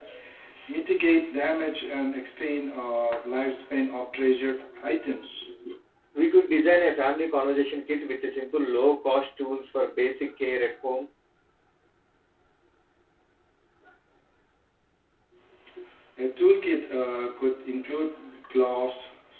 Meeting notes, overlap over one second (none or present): none